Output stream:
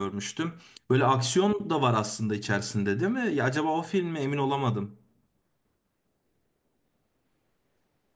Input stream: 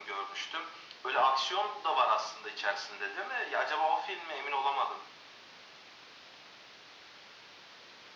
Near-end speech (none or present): none